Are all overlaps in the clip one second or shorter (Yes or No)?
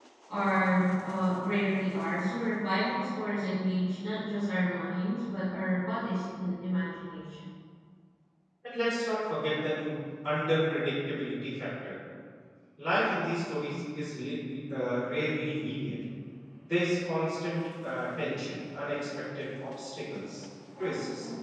Yes